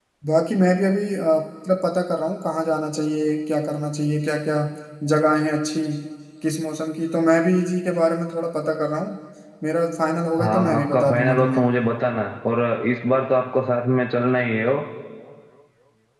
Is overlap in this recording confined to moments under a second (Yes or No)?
No